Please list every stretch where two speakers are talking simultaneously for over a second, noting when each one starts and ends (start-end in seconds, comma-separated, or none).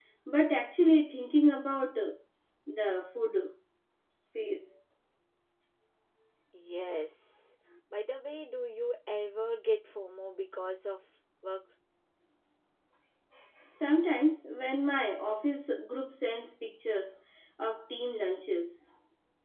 none